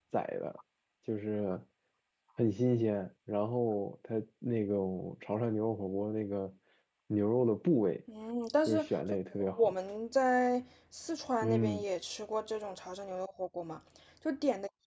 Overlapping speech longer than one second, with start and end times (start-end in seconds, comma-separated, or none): none